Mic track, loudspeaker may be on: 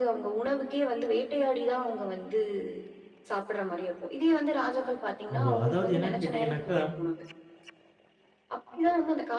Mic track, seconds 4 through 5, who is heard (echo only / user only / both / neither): echo only